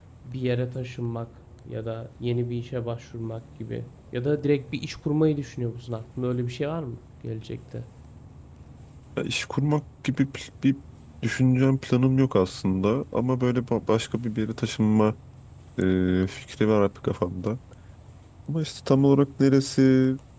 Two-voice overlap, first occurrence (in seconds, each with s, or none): none